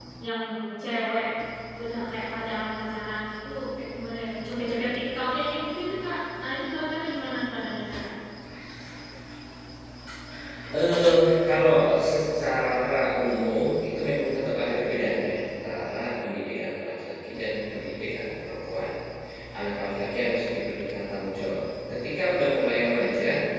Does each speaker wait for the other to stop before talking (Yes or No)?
Yes